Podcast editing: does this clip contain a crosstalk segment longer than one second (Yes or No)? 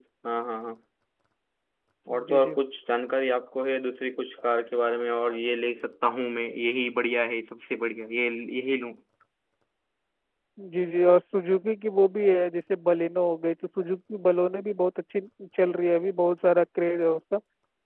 No